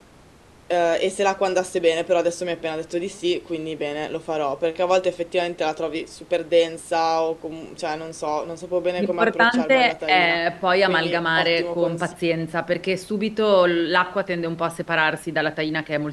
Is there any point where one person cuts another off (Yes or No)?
Yes